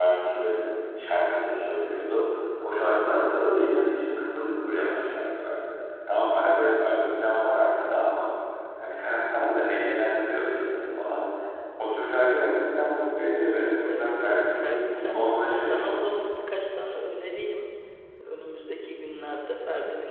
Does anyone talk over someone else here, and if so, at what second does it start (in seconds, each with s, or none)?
13.8 s